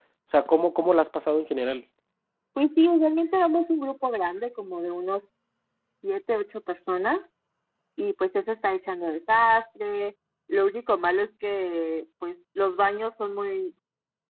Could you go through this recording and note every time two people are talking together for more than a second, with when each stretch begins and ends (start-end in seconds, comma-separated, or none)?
none